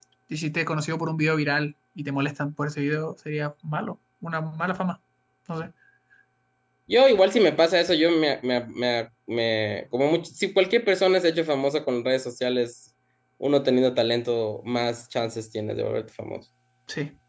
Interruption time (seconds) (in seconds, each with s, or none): none